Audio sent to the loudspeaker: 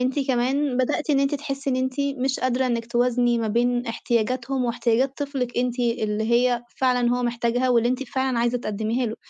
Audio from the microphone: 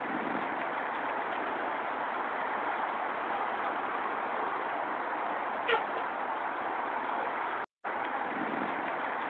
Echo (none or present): none